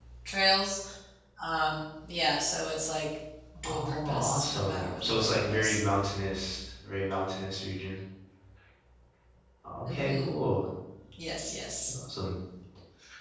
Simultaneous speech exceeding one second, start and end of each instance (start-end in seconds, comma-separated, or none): 3.6-5.8